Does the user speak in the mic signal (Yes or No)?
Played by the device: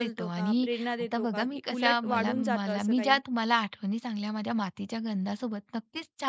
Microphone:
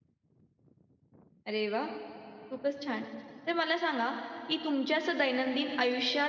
Yes